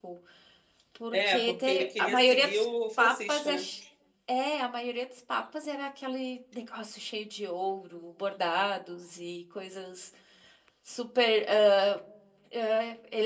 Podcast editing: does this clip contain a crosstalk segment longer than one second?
Yes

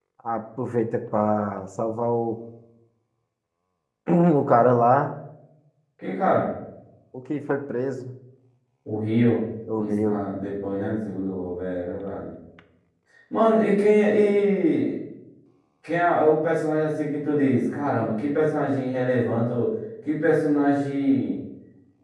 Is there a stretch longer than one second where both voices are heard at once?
No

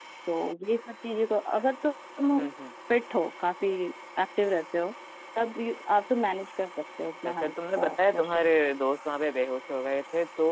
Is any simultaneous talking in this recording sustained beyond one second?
Yes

